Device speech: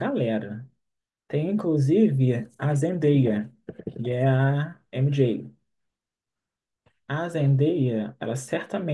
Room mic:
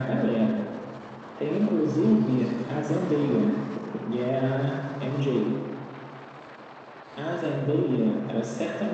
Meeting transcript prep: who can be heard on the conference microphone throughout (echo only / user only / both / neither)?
echo only